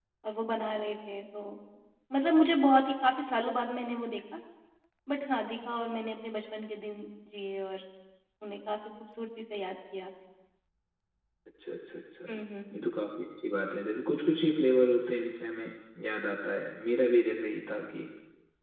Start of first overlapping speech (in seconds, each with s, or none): none